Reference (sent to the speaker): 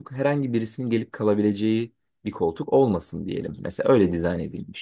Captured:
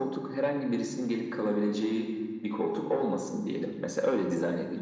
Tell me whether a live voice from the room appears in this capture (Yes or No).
No